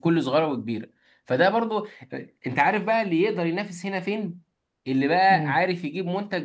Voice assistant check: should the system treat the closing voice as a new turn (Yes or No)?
No